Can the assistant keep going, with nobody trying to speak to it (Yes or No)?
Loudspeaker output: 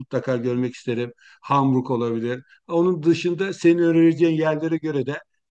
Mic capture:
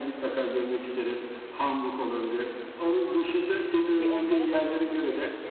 No